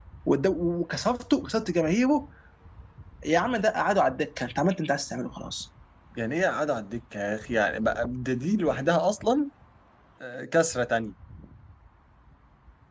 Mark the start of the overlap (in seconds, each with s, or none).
none